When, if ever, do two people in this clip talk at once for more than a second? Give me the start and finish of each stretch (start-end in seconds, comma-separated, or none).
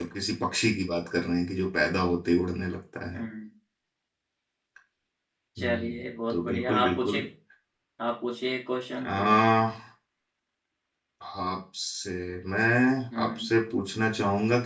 5.6-7.2